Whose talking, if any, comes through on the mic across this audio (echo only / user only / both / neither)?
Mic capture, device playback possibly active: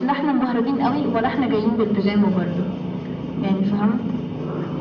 echo only